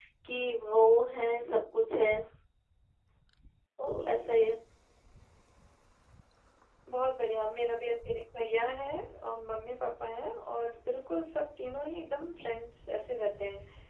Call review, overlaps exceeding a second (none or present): none